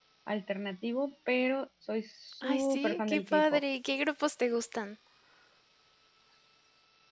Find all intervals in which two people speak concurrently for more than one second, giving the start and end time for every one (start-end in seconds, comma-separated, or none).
2.4-3.6